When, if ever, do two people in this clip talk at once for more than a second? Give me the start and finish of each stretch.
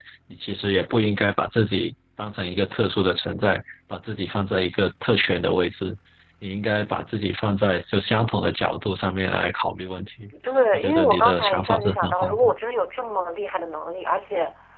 10.7-12.5

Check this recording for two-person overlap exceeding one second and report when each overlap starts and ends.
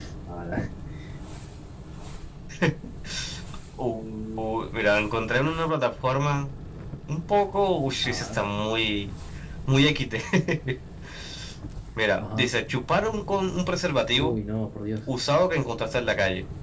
none

